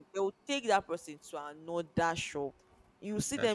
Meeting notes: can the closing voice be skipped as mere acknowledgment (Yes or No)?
Yes